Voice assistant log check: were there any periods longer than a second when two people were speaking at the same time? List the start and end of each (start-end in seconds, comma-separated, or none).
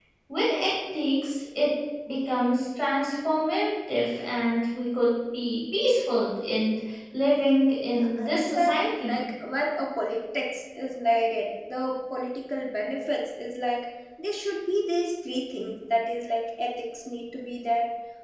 7.9-9.2